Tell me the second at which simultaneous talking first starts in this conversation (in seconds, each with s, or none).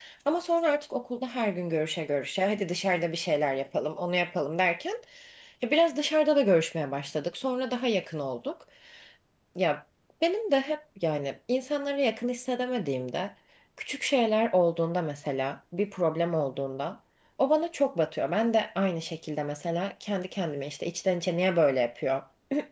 none